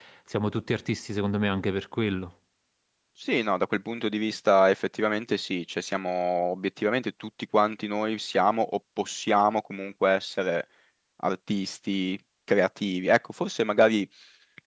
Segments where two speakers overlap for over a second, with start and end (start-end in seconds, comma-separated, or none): none